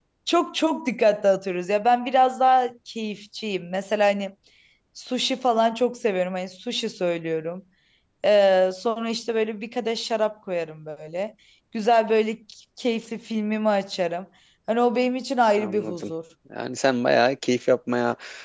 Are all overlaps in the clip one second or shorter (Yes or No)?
Yes